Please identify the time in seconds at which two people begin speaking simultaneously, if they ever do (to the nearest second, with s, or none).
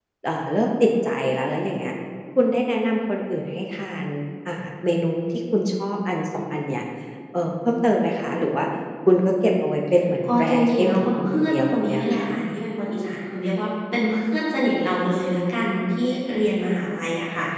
10 s